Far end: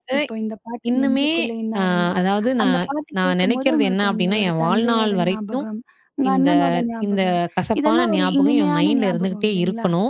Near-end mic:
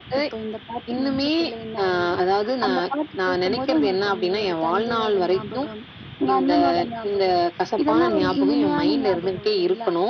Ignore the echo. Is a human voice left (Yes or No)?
No